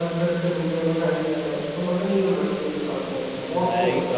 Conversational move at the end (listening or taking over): taking over